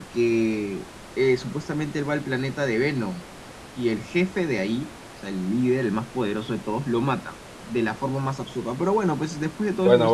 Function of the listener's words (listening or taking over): taking over